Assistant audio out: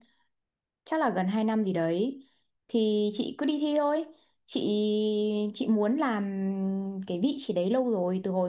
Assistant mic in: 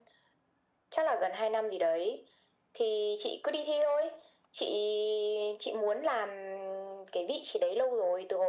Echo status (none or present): present